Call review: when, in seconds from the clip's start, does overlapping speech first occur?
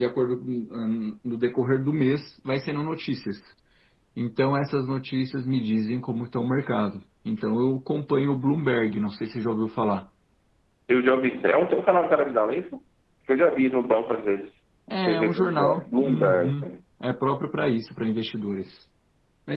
15 s

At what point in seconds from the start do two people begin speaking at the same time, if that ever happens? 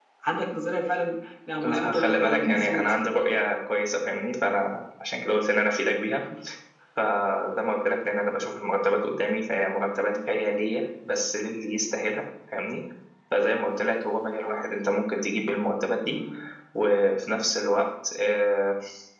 2 s

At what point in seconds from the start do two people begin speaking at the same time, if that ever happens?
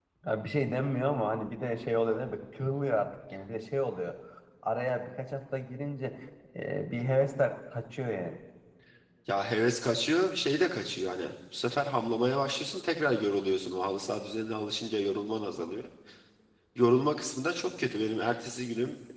none

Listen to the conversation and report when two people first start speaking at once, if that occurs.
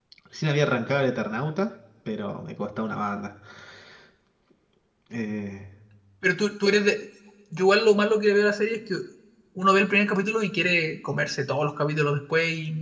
none

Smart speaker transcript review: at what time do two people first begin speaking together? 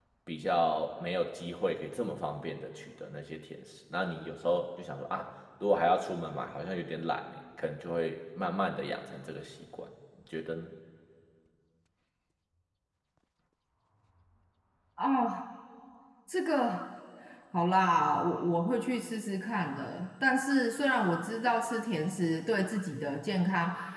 none

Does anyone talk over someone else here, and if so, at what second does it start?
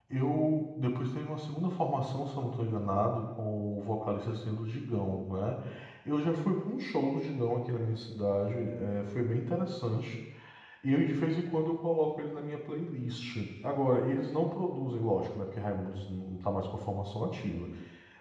none

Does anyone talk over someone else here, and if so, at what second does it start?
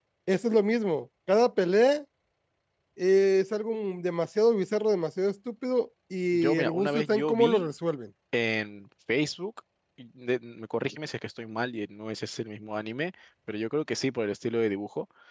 6 s

